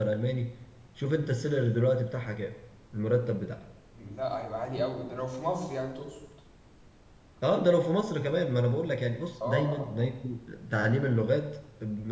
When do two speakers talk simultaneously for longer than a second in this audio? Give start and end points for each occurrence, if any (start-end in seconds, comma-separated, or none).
none